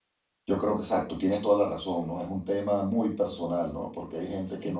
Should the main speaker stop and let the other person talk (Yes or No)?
No